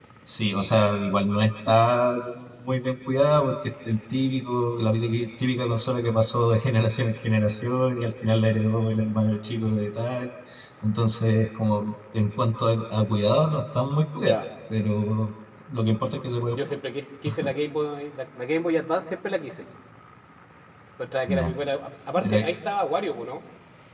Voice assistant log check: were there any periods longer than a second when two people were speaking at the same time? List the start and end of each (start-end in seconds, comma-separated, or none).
none